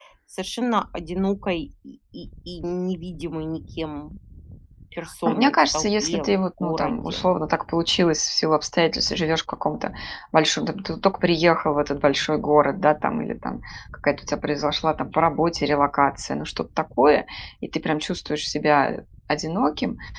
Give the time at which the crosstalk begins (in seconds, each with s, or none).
5.2 s